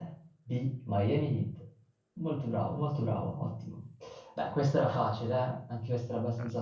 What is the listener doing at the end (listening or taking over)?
taking over